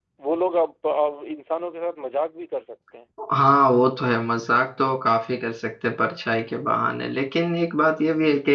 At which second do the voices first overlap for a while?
none

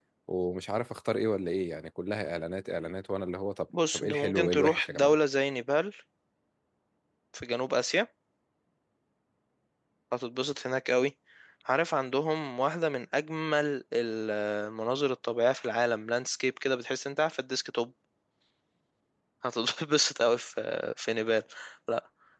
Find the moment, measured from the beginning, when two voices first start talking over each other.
3.7 s

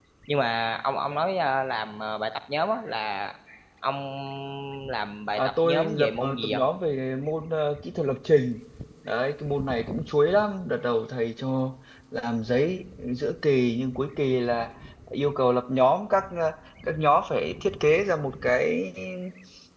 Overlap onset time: 5.4 s

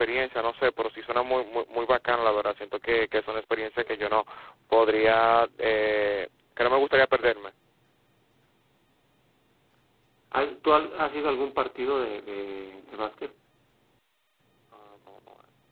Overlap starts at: none

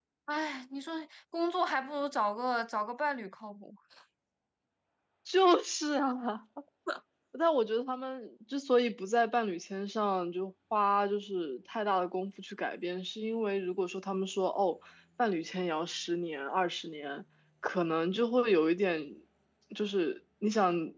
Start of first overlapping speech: none

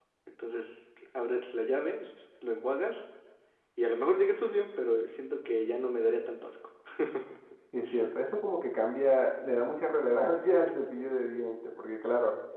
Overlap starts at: none

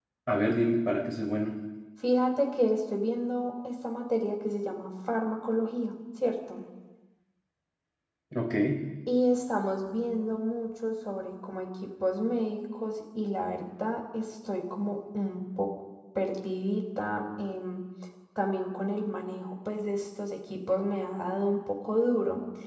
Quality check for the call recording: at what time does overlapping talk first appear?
none

